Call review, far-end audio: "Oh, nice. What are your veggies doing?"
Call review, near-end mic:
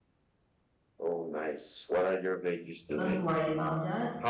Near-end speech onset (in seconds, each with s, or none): 3.0 s